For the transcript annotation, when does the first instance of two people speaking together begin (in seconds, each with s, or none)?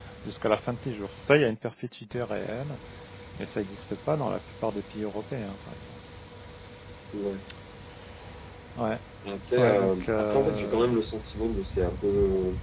9.6 s